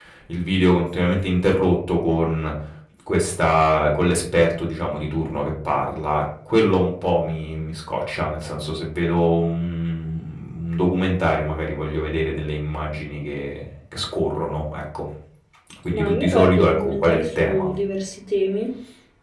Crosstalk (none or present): present